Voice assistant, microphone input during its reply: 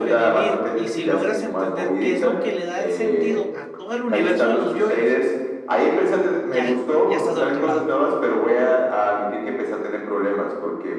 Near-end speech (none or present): present